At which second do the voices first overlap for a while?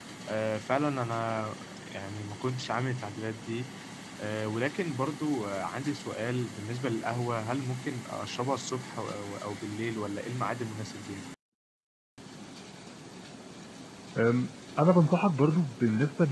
none

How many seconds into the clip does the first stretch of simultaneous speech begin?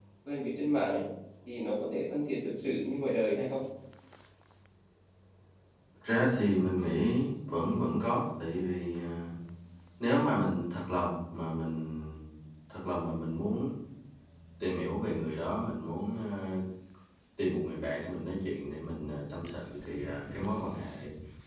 none

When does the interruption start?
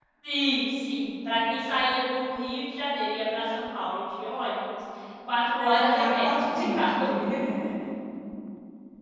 5.6 s

